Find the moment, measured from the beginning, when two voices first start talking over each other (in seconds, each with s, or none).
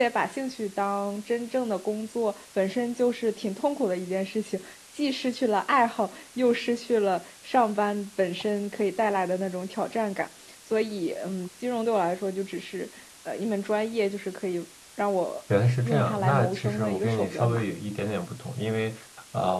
15.8 s